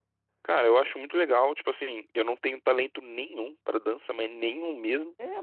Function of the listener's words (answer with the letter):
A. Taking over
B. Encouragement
A